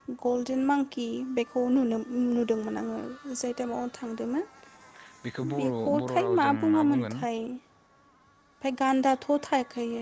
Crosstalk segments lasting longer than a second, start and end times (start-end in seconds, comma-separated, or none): 5.6-7.2